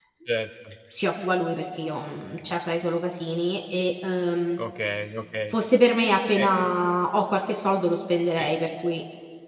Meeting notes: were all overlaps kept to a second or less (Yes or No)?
Yes